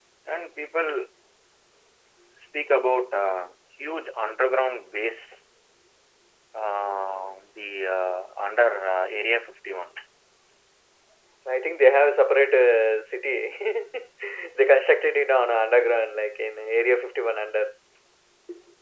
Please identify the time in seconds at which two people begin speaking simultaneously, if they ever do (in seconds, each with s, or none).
none